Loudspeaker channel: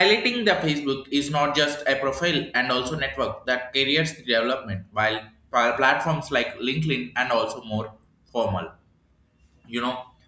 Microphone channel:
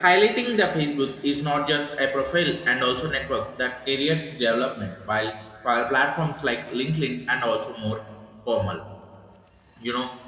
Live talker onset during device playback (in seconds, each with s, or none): none